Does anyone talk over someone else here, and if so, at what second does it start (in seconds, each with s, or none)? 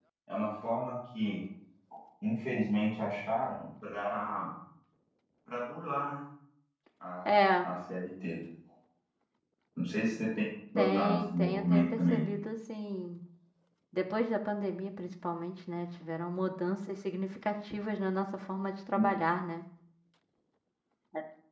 10.8 s